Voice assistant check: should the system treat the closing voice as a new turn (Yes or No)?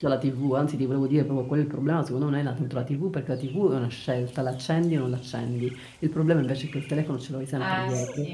No